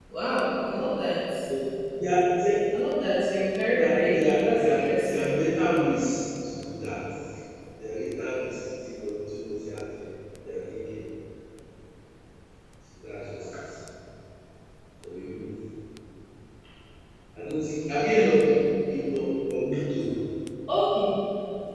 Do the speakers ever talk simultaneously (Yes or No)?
Yes